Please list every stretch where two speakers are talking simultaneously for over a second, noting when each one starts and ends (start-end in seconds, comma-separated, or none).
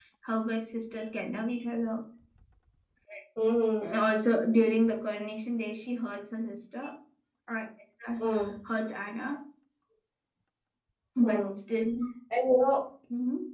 none